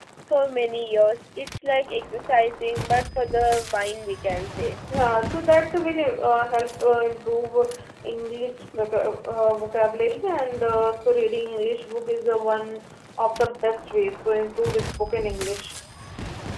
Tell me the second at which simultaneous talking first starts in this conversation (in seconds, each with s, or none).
none